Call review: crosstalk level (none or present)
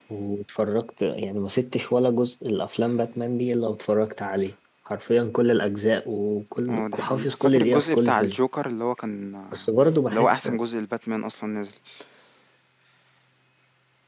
present